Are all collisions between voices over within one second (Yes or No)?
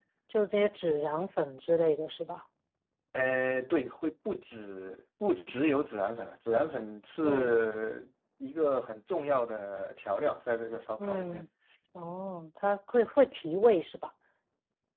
Yes